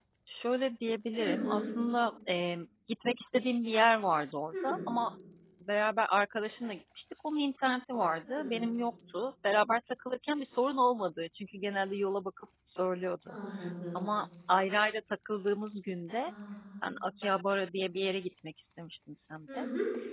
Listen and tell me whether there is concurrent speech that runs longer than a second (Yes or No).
No